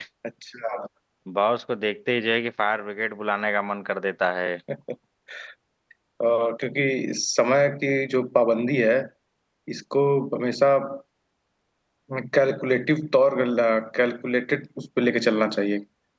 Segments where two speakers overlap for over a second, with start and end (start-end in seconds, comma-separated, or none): none